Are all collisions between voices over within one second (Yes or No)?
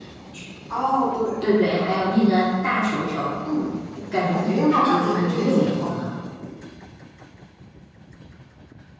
No